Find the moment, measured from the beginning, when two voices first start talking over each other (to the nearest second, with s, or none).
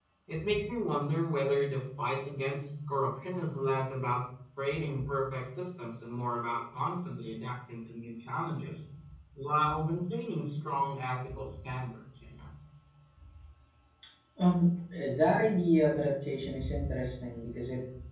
none